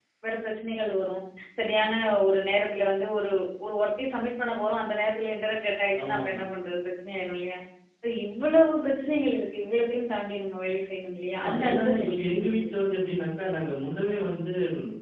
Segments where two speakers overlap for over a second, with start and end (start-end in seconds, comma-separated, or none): 11.3-12.7